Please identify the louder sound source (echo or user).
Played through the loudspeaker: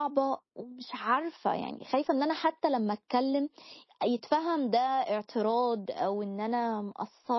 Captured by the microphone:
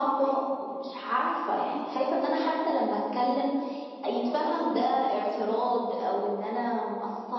echo